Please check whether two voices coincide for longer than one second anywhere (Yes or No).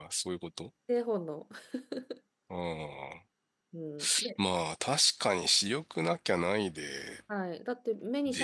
No